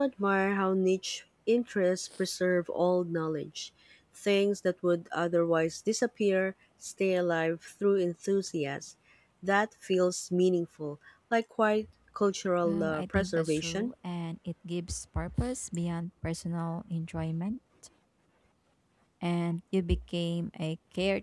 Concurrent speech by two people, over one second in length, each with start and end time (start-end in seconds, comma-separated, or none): 12.6-13.9